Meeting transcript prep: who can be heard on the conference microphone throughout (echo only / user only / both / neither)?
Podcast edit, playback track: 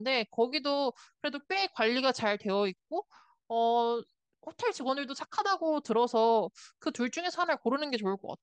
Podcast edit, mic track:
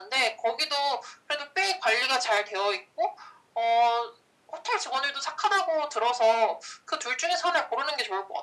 echo only